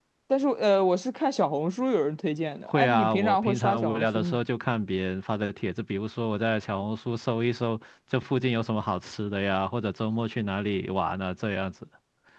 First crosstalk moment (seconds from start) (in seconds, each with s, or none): 2.7 s